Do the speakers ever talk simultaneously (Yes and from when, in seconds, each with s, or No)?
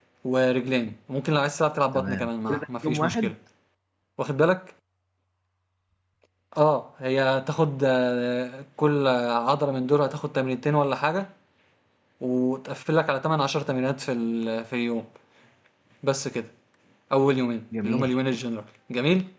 Yes, from 1.9 s